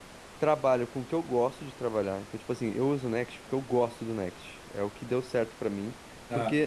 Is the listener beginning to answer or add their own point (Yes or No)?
No